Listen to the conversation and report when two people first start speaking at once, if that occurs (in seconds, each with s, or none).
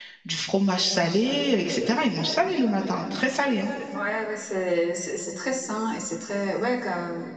none